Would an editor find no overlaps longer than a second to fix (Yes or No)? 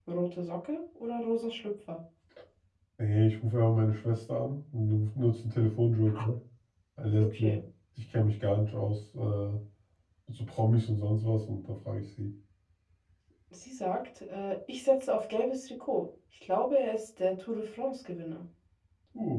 Yes